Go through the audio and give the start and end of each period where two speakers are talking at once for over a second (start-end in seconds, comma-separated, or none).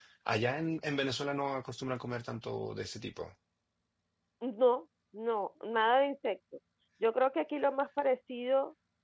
none